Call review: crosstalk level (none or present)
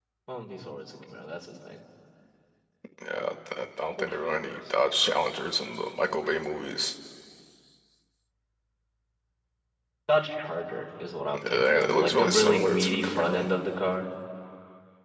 present